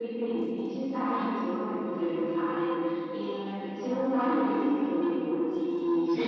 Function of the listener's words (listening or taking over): taking over